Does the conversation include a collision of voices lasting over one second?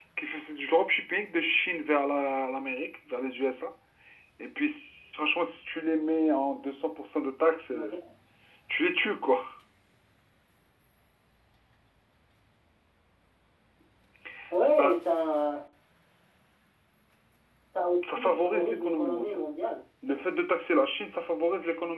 Yes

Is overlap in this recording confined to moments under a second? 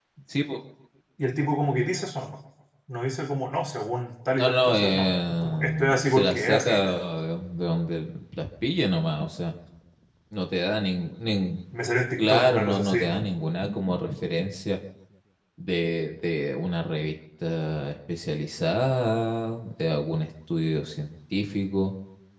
No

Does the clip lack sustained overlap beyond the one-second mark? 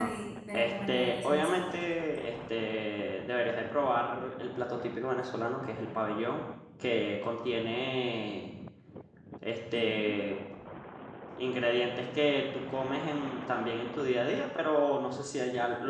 No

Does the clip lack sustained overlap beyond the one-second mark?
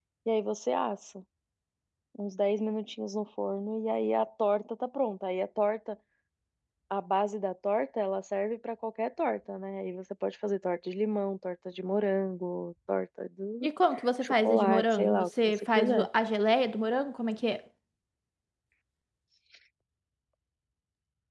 No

